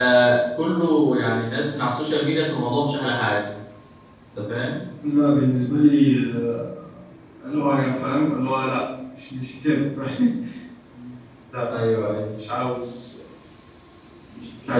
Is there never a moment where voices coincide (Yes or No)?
Yes